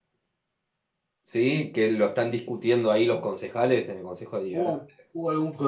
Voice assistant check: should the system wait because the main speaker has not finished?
No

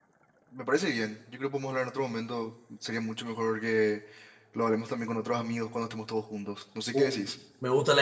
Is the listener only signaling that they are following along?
No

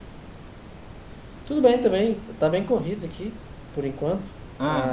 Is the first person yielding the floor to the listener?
No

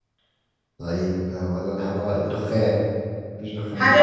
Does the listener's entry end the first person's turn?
Yes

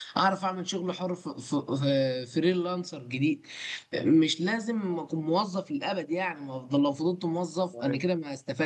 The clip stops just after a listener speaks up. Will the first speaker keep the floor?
Yes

